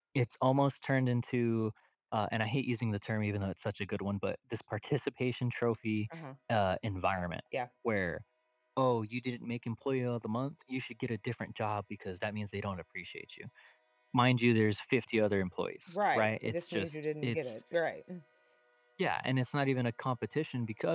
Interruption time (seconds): 15.9 s

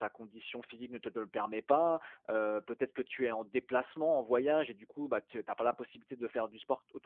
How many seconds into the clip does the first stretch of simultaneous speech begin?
none

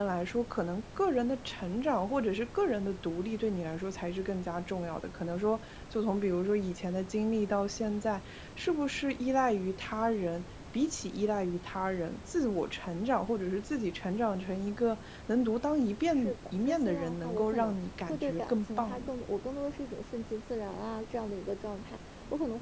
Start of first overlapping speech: 16.1 s

